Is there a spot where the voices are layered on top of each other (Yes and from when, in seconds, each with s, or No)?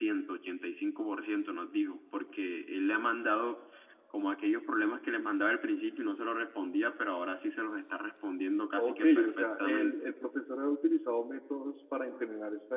Yes, from 8.8 s